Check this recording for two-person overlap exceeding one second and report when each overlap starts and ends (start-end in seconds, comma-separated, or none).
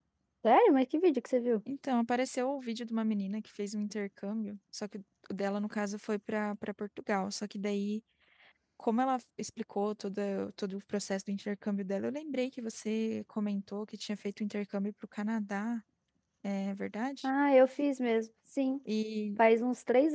none